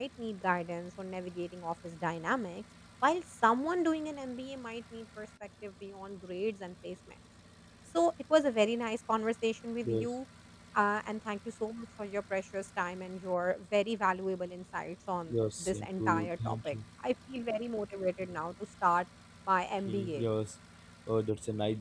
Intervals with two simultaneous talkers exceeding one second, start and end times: 15.3-16.8

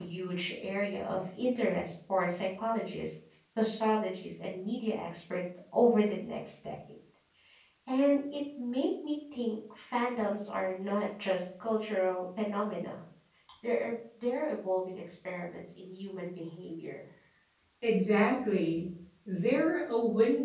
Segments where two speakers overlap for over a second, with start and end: none

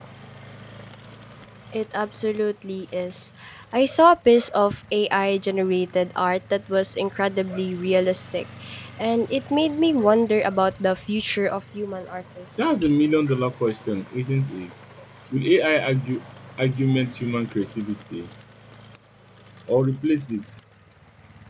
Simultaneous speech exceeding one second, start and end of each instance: none

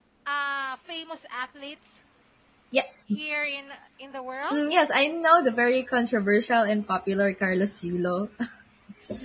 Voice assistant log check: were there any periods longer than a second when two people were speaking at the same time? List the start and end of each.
none

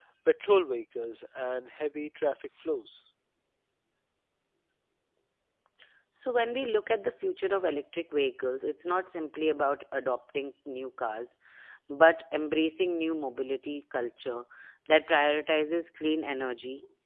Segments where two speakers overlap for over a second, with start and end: none

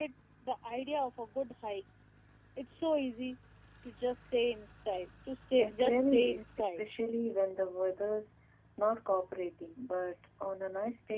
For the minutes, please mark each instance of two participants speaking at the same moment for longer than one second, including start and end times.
5.6-6.8

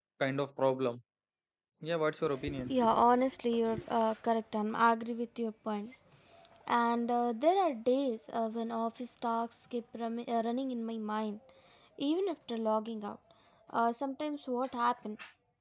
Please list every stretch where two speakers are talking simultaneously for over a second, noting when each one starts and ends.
none

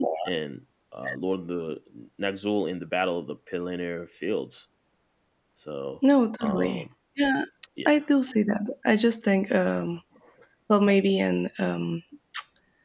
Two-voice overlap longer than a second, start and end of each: none

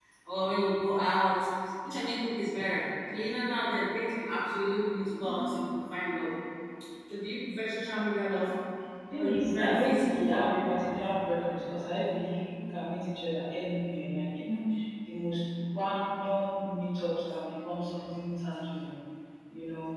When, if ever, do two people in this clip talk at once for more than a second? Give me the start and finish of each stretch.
9.1-10.5

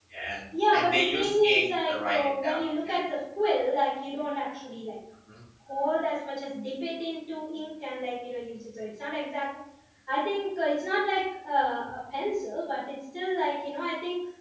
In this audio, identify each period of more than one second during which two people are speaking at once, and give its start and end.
0.7-3.0

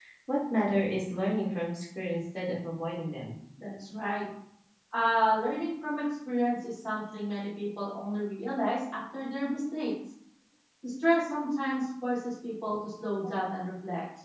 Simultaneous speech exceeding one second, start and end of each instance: none

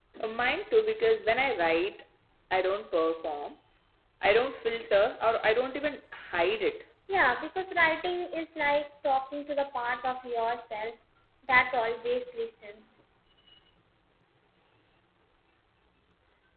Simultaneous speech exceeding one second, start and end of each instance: none

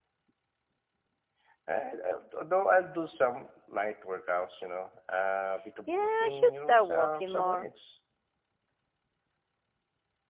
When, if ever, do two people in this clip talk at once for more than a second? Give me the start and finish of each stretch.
5.9-7.7

